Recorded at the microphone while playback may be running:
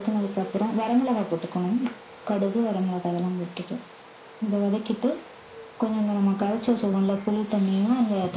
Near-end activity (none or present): none